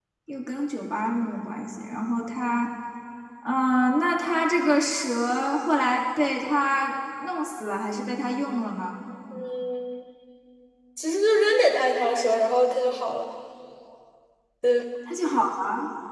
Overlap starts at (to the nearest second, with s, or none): none